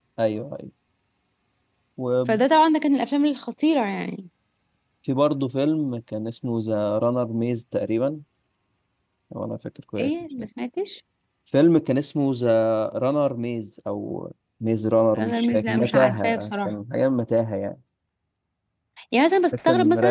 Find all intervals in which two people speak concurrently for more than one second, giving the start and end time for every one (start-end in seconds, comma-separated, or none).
15.1-16.7